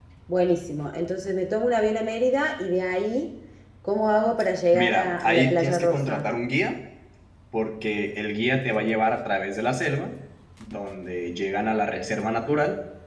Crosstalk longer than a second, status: present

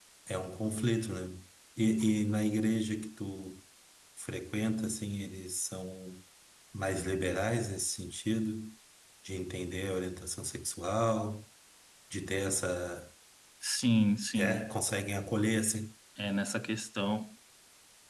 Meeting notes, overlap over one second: none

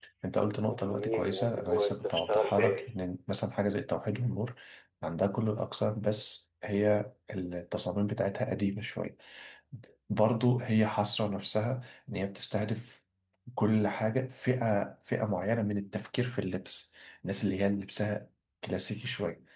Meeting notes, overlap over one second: present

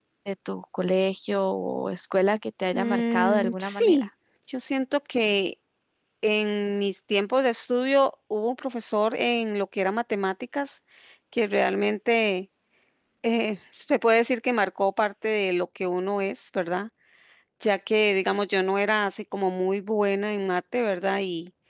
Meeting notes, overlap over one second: present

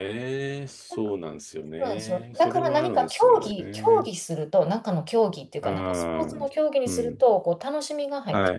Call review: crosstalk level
present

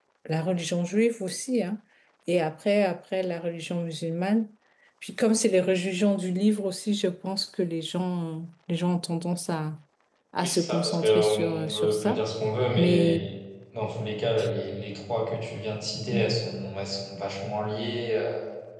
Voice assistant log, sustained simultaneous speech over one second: present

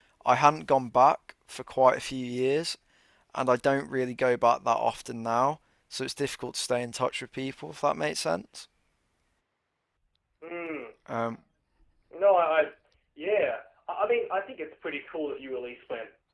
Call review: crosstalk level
none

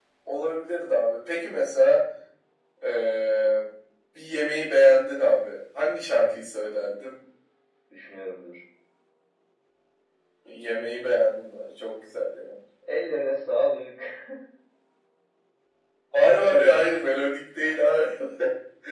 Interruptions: none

